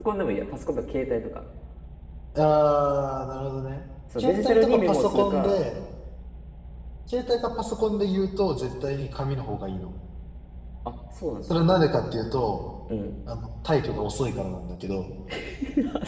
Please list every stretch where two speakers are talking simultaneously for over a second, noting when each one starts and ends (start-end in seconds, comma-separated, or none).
4.2-5.6